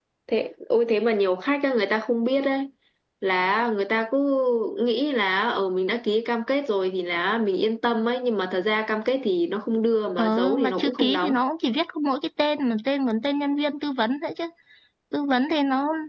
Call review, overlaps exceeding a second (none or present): present